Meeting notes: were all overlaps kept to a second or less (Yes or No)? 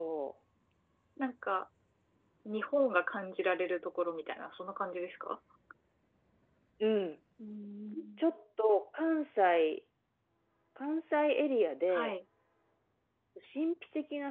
Yes